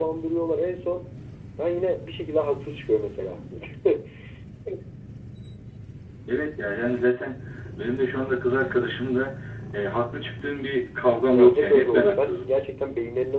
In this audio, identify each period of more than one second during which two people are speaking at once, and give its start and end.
11.3-12.5

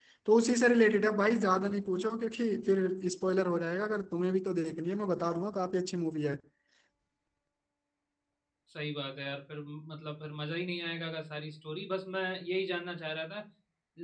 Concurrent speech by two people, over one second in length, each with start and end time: none

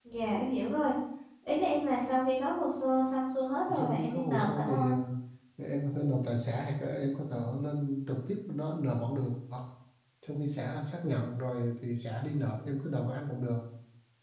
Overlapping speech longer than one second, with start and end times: 3.7-5.0

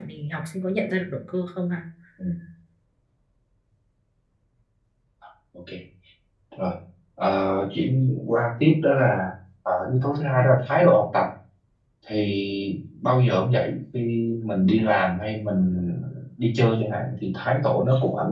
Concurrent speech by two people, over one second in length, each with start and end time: none

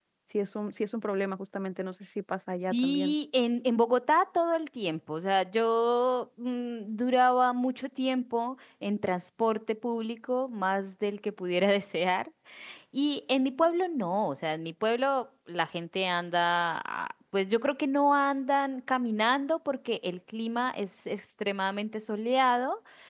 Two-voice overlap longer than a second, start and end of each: none

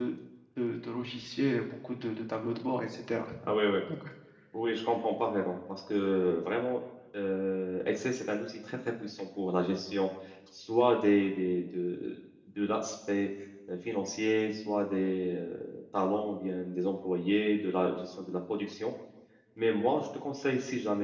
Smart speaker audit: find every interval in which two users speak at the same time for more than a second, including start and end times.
none

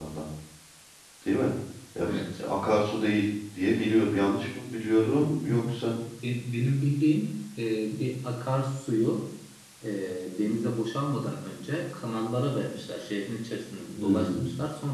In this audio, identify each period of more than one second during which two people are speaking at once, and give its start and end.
none

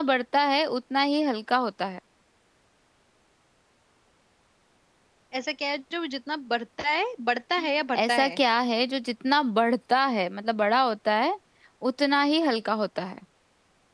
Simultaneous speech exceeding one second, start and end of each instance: none

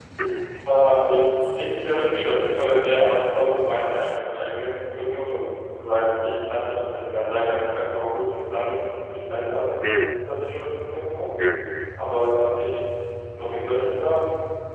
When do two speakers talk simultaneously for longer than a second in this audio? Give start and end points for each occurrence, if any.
none

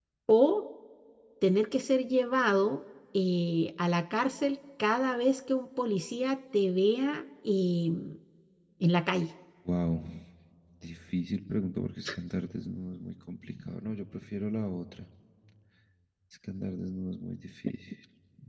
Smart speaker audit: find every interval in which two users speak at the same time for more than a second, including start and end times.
none

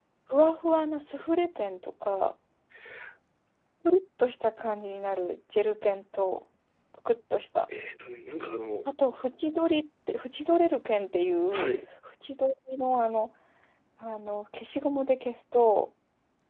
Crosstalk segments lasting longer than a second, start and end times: none

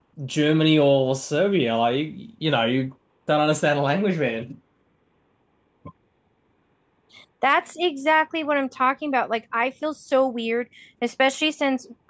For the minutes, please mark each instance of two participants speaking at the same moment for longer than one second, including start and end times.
none

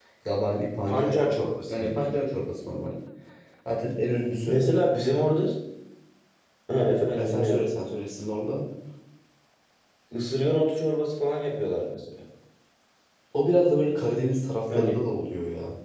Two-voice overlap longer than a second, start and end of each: none

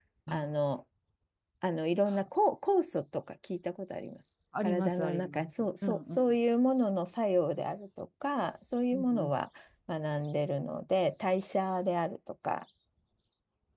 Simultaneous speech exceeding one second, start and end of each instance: 4.6-6.4

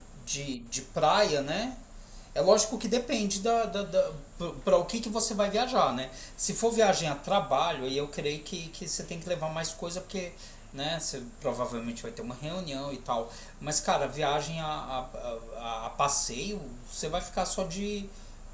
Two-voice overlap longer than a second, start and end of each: none

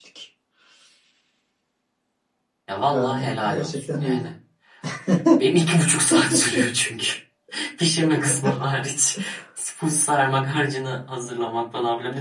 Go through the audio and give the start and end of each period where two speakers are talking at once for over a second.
2.9-4.3

